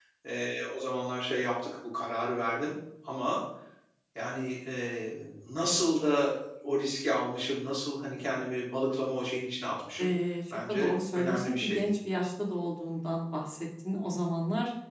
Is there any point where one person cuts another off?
Yes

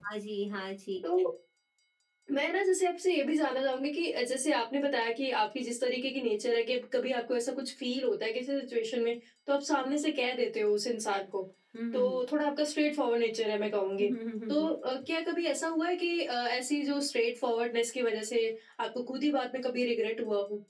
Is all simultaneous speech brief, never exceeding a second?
Yes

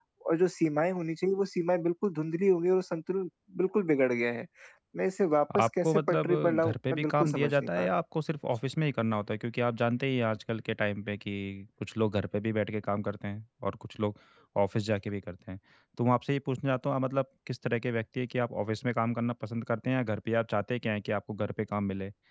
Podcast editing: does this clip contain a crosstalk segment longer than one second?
Yes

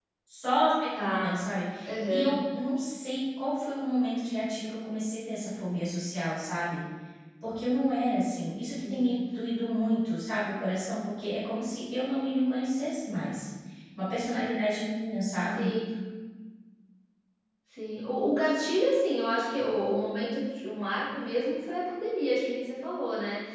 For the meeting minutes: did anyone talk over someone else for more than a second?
No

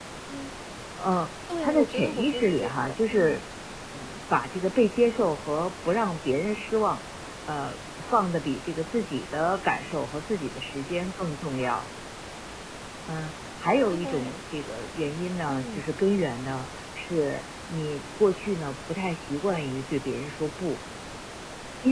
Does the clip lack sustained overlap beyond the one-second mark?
No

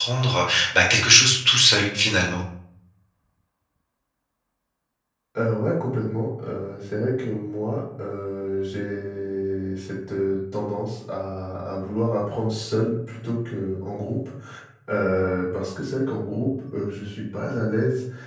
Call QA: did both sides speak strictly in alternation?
Yes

